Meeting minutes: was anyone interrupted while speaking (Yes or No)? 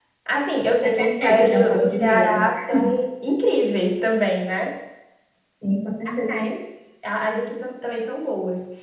Yes